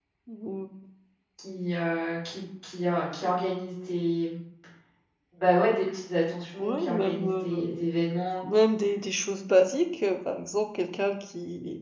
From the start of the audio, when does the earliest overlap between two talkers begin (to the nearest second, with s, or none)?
7 s